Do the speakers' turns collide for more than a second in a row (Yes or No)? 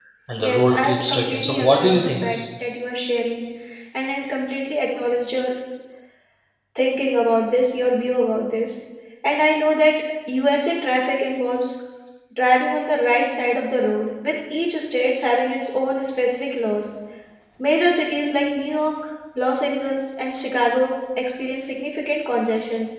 Yes